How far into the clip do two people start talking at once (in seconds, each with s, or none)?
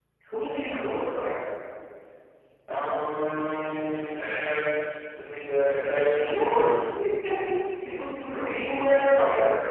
3.3 s